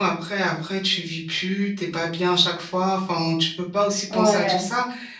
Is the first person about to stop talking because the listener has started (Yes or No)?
No